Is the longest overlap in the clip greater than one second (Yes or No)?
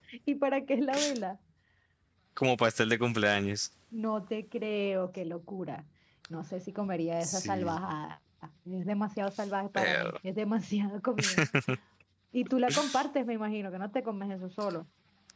No